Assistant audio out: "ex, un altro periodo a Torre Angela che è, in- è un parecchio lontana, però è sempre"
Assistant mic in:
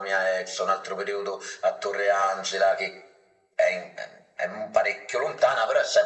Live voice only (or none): none